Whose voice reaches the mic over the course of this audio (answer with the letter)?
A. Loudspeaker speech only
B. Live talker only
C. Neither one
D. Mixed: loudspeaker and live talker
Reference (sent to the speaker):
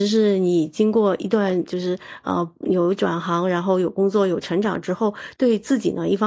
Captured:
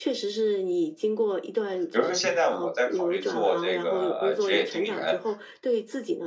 D